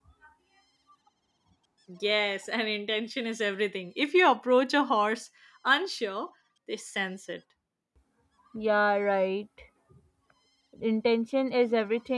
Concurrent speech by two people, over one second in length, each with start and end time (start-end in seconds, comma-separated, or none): none